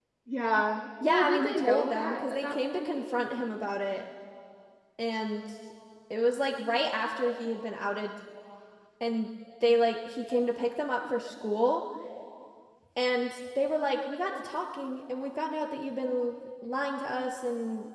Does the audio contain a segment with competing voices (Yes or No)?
Yes